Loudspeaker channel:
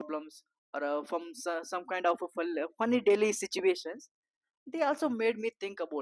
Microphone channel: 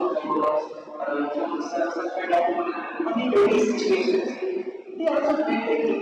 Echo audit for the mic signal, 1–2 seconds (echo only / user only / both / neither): echo only